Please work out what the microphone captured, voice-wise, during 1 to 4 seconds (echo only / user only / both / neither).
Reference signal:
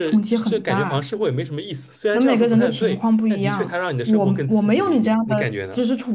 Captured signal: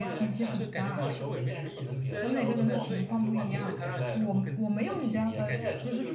both